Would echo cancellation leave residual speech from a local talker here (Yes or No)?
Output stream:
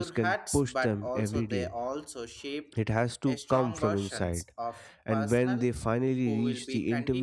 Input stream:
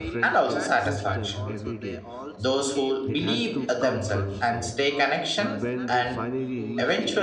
Yes